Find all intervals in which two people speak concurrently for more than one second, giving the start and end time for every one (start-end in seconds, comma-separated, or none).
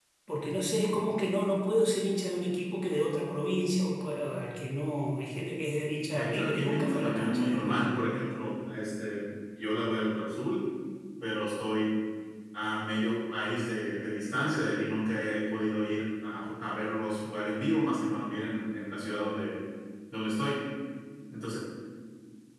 6.2-7.9